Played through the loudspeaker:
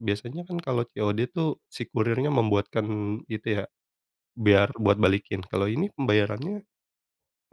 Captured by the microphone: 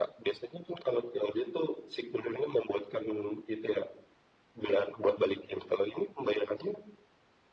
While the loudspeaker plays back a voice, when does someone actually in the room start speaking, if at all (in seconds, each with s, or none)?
none